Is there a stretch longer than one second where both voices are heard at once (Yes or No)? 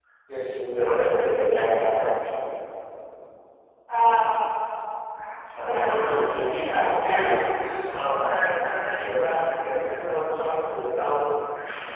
Yes